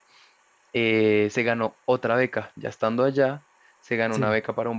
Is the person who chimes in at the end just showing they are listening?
Yes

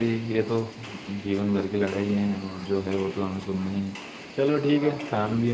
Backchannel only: Yes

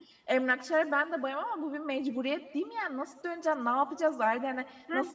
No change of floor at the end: Yes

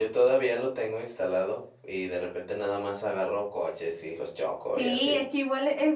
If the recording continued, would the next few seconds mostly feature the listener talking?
Yes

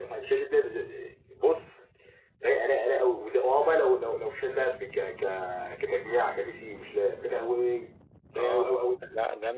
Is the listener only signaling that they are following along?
No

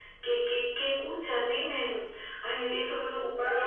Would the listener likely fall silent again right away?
No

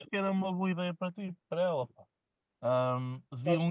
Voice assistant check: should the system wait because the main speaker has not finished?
Yes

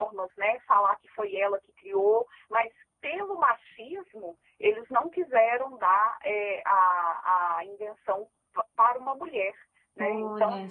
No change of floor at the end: No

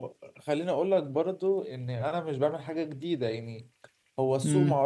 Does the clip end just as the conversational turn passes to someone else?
No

